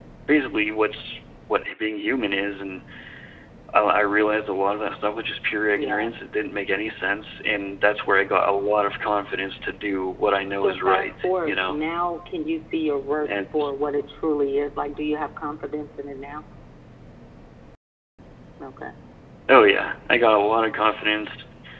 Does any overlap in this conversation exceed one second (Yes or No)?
Yes